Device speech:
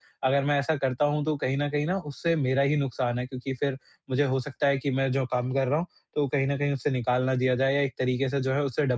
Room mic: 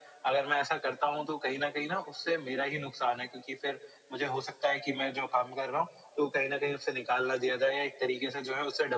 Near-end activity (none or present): none